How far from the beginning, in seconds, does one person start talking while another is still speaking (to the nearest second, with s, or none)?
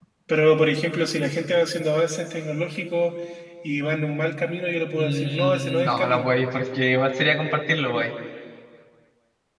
5 s